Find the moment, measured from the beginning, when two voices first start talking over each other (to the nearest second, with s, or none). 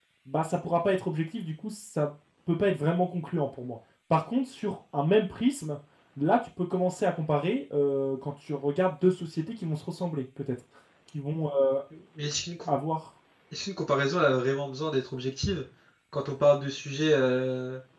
none